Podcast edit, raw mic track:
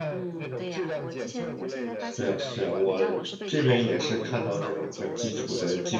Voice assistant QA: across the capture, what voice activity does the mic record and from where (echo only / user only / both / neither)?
both